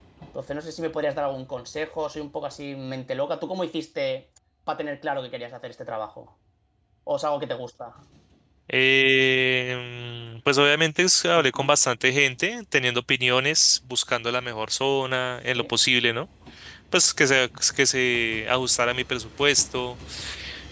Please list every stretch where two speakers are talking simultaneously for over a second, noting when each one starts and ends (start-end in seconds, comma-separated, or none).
none